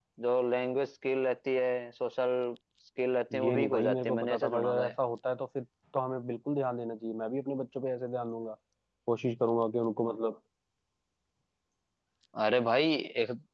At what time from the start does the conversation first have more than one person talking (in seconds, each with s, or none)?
3.3 s